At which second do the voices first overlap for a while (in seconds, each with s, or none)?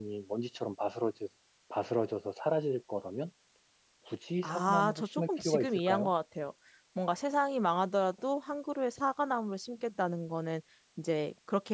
4.4 s